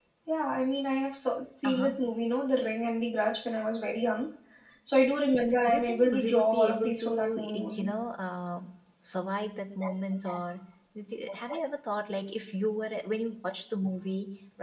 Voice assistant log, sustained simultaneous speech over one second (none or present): present